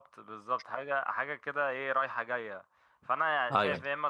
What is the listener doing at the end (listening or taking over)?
listening